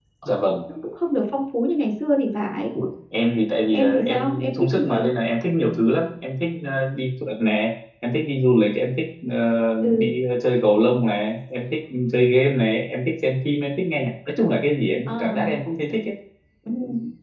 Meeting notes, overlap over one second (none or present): present